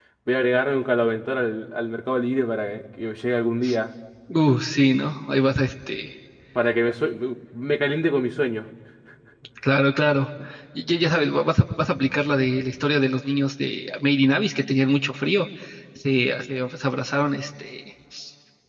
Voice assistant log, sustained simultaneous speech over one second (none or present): none